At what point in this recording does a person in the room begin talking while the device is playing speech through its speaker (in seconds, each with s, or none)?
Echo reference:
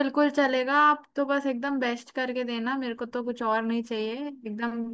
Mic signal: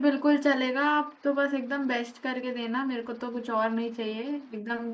none